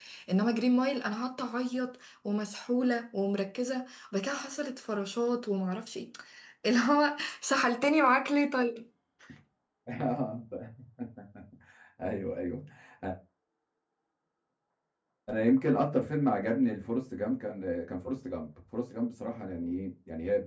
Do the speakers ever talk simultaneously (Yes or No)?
No